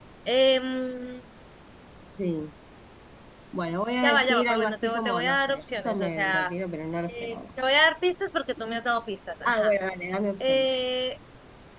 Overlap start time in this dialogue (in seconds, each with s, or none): 4.0 s